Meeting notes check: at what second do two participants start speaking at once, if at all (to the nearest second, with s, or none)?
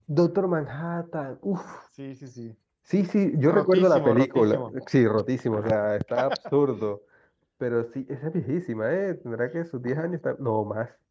3 s